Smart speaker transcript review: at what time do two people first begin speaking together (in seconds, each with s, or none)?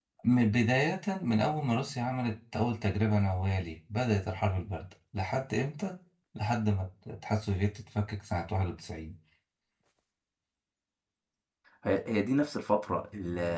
none